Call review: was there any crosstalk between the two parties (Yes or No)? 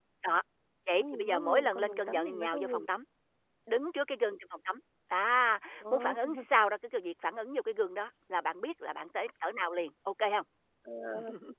Yes